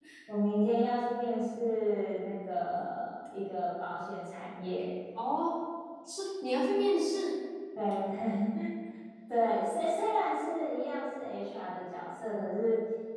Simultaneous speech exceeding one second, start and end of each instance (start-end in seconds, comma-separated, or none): none